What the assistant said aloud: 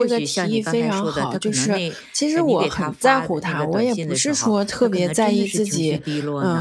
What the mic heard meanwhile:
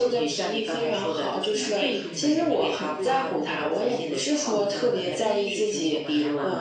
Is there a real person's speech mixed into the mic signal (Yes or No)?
Yes